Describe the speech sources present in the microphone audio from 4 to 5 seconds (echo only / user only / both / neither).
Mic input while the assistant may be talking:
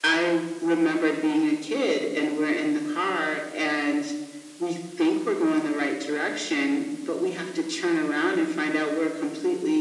echo only